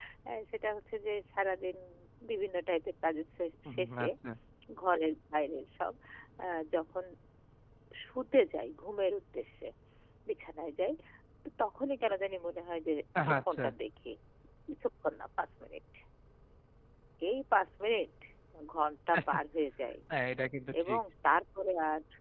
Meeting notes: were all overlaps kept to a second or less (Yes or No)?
Yes